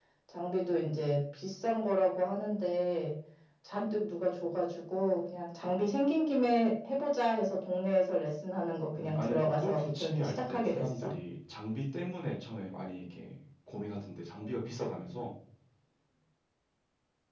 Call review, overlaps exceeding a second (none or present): present